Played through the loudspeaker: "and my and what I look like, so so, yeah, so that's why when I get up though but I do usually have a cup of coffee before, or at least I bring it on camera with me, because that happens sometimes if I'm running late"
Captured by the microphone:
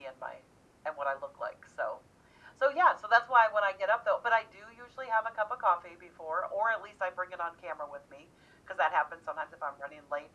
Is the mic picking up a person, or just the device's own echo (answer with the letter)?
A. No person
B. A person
A